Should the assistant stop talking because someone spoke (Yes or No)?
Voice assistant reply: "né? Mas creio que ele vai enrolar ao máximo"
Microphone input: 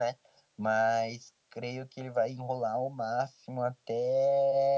No